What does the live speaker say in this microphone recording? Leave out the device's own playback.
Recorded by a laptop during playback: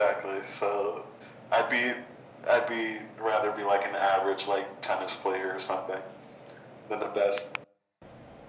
none

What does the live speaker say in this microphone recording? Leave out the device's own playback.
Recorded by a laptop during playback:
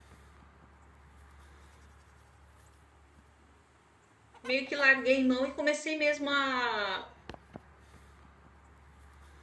meio que larguei mão e comecei mesmo a

